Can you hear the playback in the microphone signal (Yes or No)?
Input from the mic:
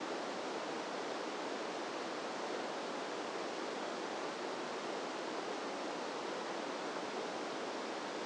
No